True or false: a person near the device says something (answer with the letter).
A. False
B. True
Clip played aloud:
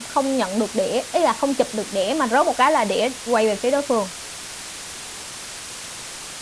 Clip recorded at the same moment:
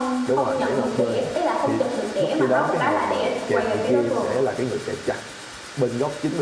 B